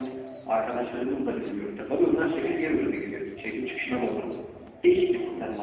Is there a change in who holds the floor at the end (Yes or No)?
No